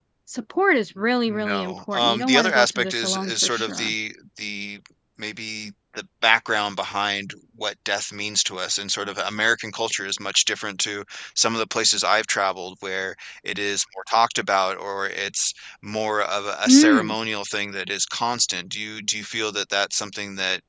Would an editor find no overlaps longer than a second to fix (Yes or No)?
No